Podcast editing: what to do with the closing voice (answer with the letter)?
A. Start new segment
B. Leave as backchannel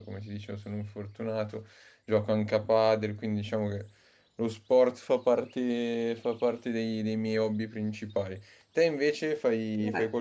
A